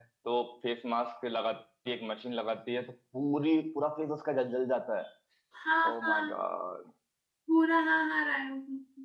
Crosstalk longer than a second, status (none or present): none